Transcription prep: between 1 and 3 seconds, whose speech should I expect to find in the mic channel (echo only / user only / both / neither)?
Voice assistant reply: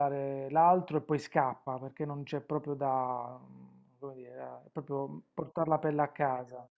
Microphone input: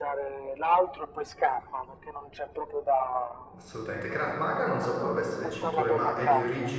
echo only